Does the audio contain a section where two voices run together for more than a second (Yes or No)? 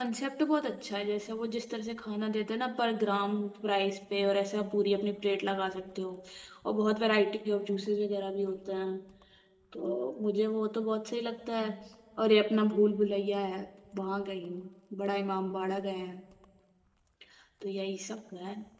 No